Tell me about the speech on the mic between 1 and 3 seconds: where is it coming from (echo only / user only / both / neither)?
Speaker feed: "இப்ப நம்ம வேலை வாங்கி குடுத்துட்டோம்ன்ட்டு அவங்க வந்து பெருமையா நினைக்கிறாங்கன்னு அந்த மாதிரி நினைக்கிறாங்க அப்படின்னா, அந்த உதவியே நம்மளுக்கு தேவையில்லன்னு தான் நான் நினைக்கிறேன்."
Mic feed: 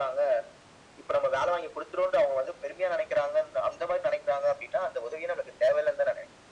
echo only